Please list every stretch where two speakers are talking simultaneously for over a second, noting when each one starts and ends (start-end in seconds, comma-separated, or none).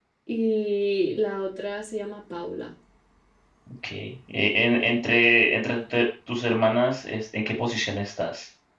none